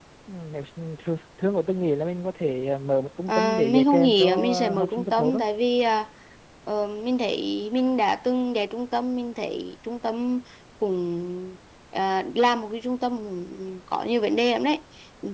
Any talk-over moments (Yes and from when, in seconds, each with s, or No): Yes, from 3.3 s